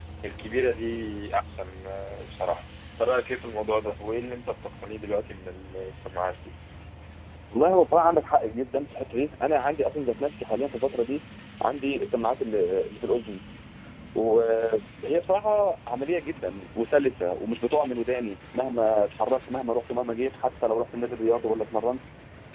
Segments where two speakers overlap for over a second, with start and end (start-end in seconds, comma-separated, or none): none